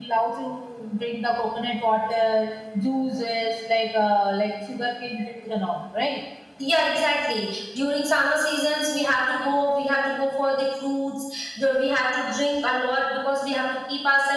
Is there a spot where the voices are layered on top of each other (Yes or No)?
No